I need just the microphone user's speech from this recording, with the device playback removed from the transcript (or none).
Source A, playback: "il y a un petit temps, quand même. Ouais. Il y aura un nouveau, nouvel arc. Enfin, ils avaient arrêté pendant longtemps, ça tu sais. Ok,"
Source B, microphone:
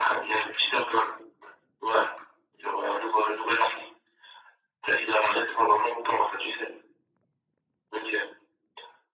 none